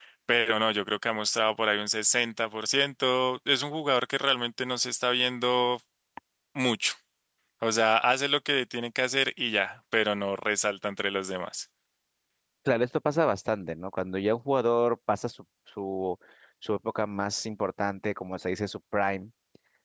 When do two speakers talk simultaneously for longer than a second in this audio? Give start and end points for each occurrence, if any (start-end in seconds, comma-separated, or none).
none